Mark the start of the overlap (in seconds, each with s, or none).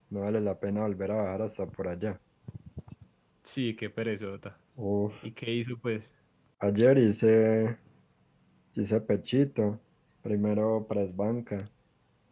none